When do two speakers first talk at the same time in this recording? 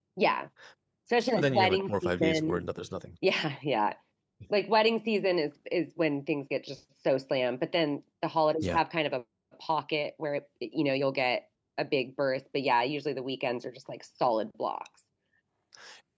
1 s

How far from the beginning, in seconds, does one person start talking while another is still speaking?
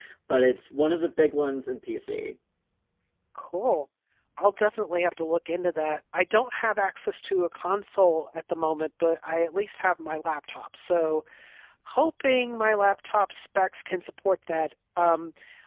none

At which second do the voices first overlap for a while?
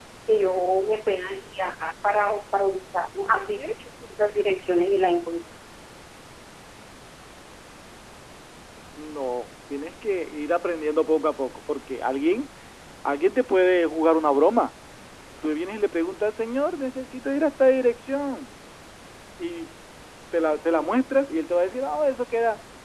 none

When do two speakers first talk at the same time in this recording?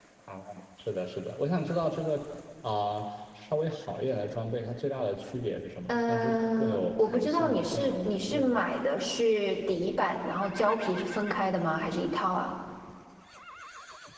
6 s

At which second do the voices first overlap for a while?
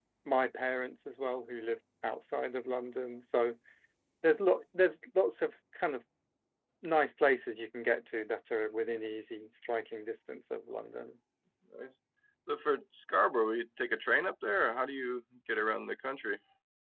none

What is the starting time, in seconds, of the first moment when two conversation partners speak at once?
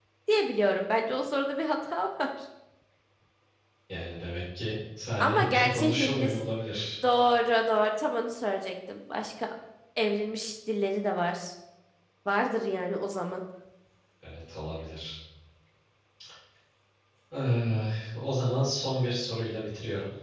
5 s

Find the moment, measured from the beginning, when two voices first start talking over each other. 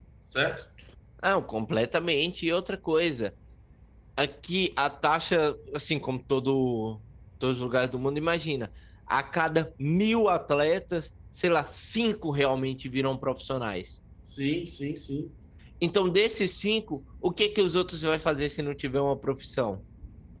none

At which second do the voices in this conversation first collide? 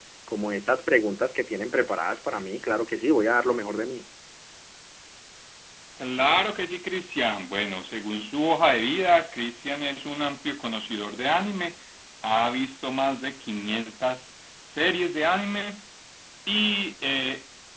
none

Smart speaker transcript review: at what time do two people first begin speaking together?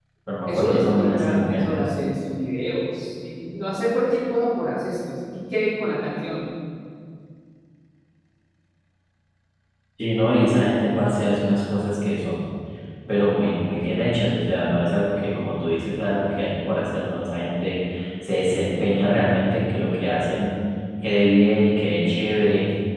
1 s

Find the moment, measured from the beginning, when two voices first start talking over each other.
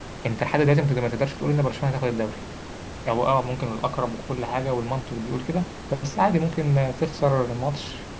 none

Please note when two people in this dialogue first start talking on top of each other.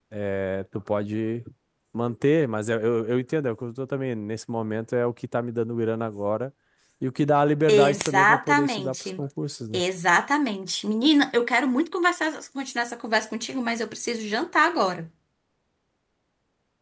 8 s

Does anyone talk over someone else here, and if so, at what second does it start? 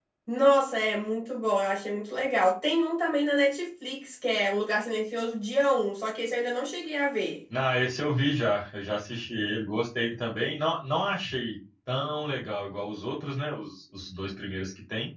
none

